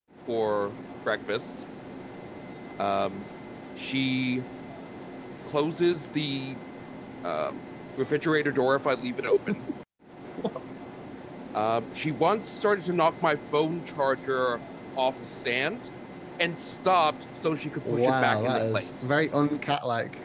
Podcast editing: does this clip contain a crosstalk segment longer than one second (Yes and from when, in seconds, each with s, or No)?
Yes, from 17.8 s